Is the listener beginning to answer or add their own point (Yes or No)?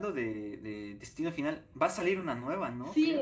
Yes